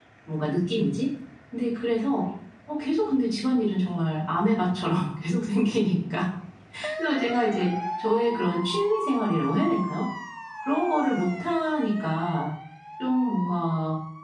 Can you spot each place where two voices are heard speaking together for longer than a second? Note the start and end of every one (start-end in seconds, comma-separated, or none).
none